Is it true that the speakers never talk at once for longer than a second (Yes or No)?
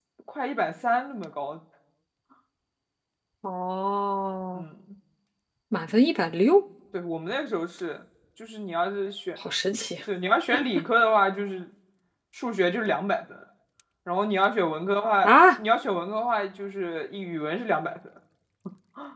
Yes